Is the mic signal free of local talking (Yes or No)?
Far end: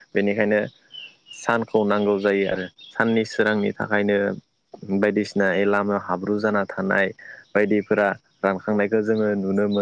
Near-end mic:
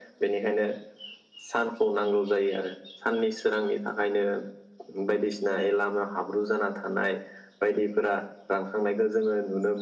Yes